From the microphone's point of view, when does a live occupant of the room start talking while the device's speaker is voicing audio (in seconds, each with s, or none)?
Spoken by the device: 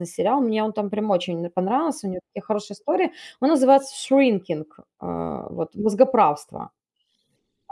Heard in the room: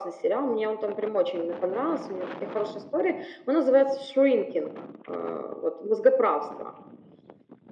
none